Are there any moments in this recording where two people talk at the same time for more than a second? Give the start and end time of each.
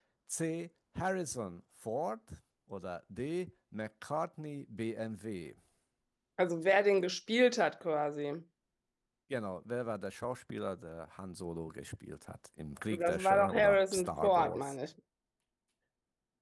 12.9-14.8

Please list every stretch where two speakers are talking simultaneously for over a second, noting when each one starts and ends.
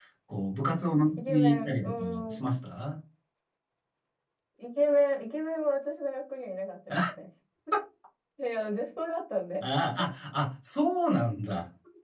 1.1-2.4

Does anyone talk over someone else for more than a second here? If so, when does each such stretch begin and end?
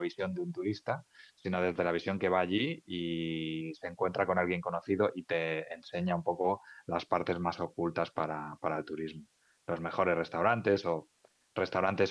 none

